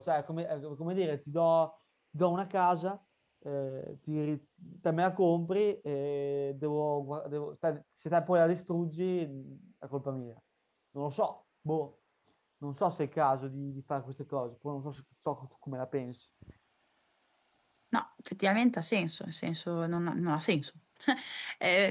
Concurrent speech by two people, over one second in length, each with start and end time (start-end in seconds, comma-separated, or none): none